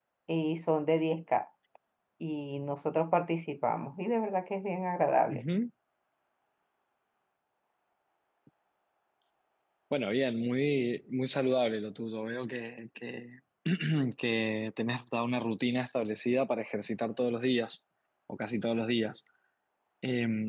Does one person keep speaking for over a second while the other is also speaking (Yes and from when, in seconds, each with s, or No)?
No